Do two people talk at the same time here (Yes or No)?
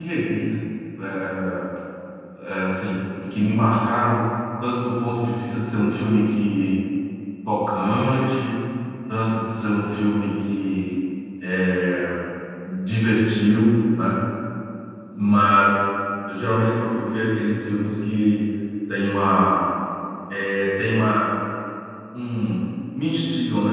No